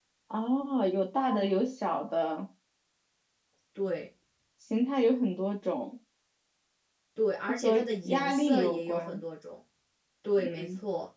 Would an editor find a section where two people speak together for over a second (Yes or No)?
Yes